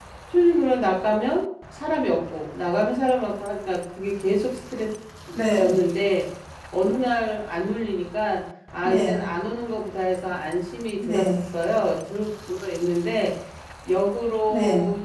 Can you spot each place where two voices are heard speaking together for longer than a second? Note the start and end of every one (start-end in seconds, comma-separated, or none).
none